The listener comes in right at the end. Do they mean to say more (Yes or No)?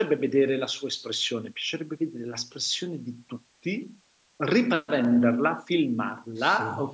No